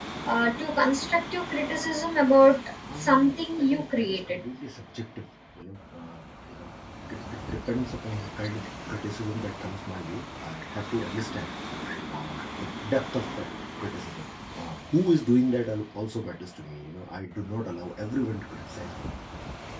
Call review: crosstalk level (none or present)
present